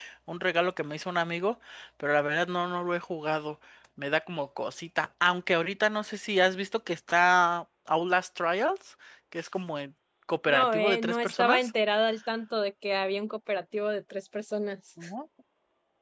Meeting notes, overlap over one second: present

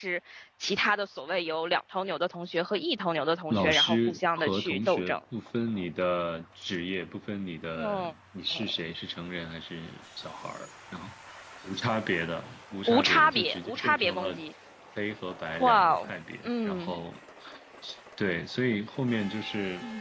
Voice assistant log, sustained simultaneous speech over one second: present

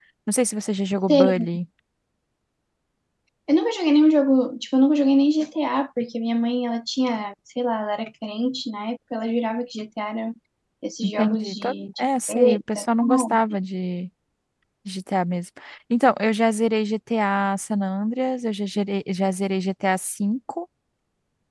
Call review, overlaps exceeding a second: present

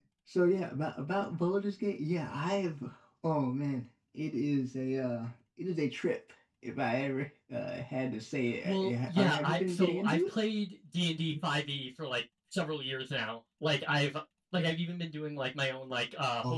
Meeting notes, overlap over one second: present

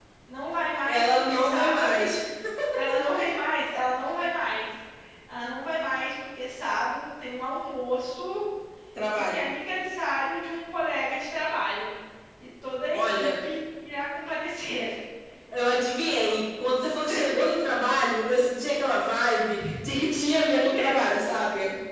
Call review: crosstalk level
present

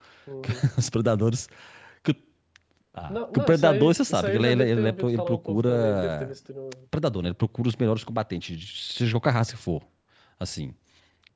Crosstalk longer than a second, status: present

